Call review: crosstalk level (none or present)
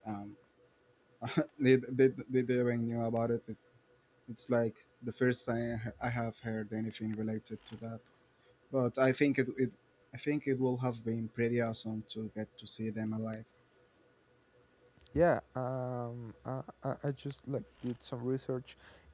none